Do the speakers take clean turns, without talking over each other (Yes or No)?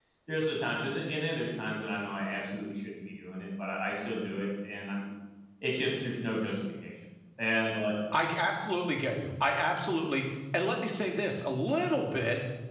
Yes